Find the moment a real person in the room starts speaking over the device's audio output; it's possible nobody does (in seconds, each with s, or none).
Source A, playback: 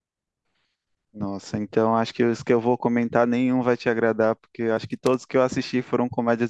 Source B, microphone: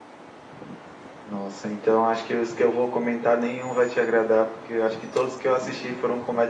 none